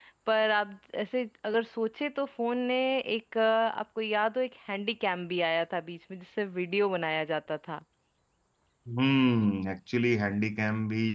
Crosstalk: none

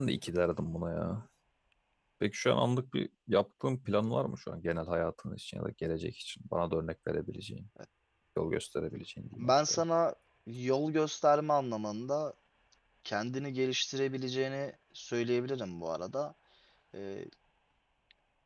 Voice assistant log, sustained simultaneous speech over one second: none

